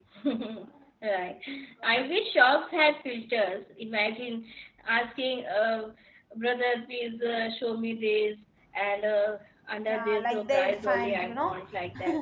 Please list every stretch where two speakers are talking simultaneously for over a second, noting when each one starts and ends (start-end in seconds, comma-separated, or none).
9.9-11.6